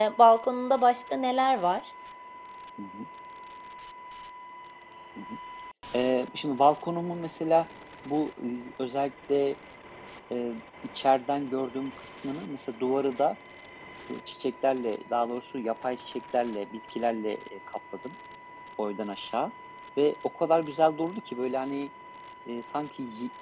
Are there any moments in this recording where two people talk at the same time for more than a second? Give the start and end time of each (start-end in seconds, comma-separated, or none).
none